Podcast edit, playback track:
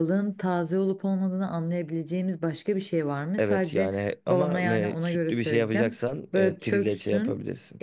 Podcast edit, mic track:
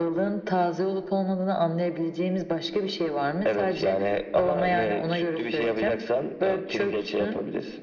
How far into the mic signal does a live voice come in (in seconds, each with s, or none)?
none